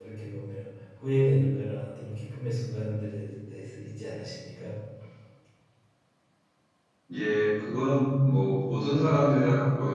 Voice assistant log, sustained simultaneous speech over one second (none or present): none